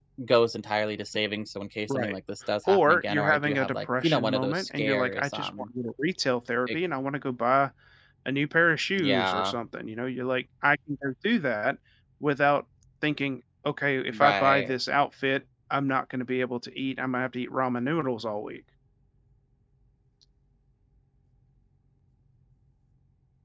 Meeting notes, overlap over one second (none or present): present